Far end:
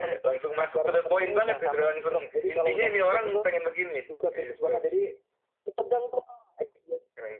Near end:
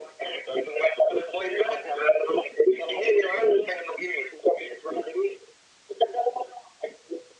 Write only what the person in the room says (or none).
none